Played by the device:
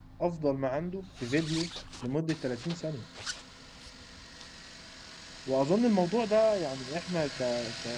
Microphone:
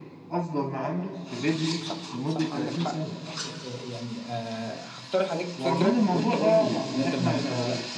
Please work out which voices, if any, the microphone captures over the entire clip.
both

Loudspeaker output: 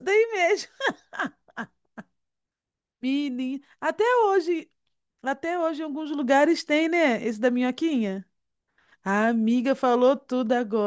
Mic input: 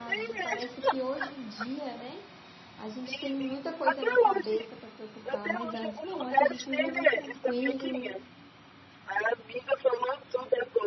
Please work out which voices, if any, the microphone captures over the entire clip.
both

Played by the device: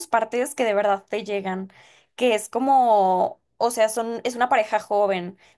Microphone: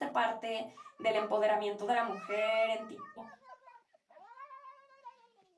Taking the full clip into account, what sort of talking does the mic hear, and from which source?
user only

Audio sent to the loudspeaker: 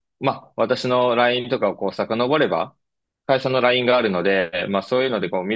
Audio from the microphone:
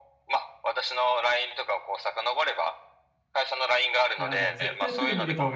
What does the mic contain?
both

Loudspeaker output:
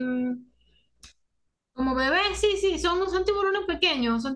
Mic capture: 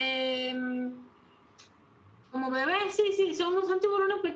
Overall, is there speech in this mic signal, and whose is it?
echo only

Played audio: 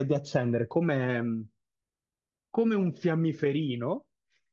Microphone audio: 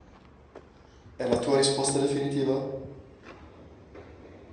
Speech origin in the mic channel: user only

